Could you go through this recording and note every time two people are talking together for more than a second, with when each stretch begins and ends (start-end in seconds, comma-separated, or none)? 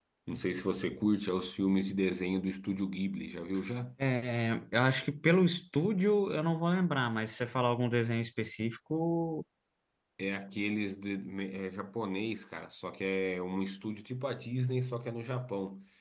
none